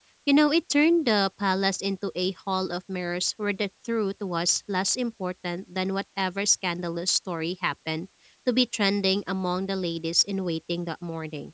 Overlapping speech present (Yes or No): No